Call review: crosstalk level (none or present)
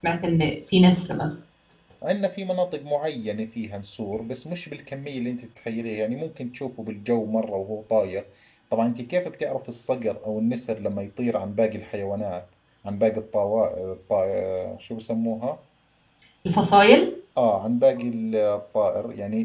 none